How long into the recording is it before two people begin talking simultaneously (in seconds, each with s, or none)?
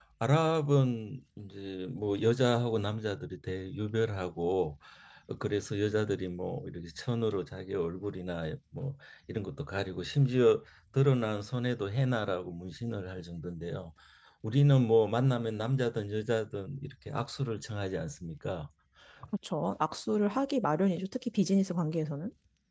none